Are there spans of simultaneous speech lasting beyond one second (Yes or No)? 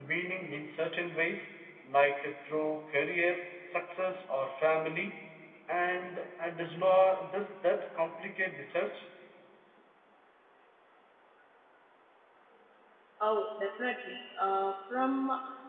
No